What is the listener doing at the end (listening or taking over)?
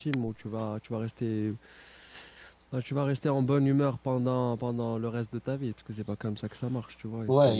taking over